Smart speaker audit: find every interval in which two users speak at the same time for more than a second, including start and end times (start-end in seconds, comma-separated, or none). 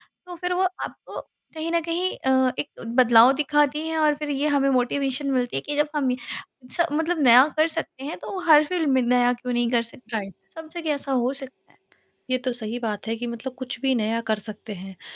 none